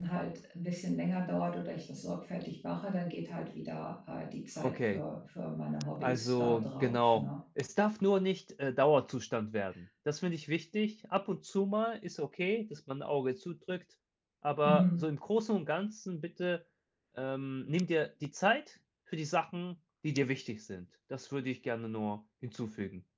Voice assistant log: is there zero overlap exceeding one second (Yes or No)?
No